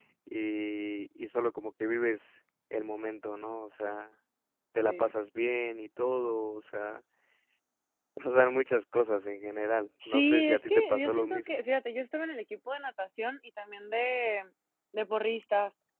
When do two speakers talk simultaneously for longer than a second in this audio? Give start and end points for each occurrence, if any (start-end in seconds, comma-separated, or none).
10.1-11.7